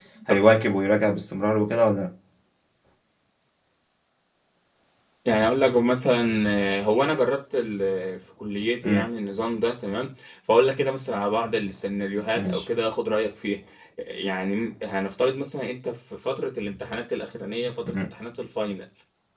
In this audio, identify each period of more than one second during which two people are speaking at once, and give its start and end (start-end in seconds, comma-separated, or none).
none